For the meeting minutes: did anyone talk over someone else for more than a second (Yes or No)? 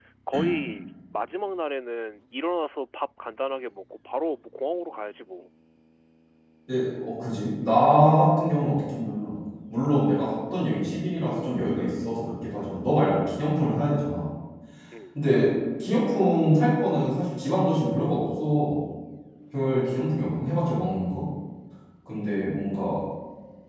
No